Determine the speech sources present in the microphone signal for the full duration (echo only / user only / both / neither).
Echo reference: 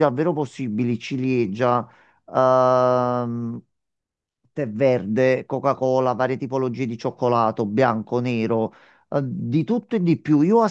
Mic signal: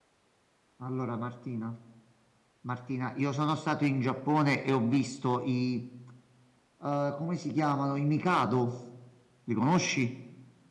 user only